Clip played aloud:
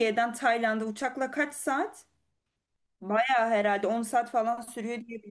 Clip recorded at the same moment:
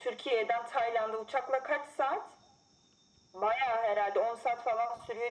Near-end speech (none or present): none